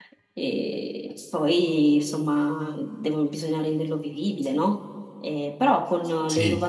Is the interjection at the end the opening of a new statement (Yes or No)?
No